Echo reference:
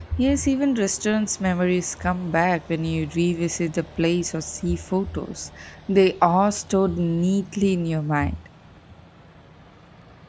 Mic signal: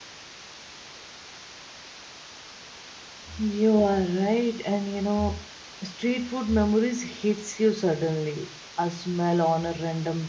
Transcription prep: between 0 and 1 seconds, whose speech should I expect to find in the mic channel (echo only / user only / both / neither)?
neither